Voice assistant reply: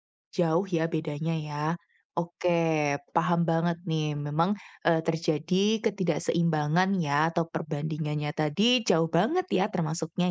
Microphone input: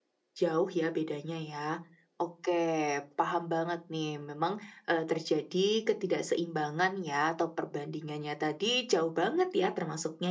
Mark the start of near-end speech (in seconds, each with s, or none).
none